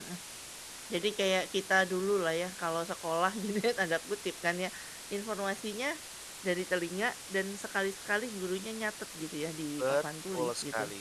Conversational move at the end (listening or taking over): taking over